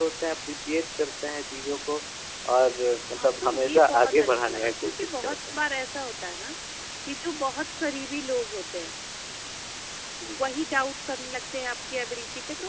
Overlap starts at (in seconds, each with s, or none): 3.1 s